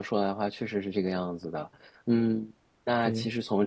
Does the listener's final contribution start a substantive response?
No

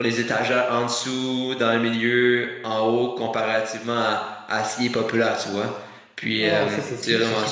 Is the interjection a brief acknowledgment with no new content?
No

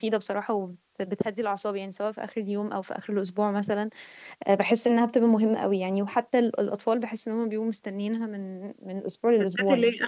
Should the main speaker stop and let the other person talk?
Yes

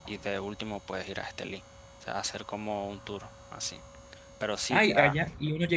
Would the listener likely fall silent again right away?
No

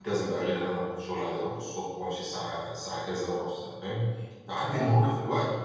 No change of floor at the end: Yes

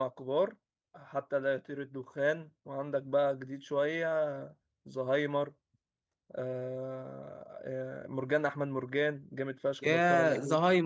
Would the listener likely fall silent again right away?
No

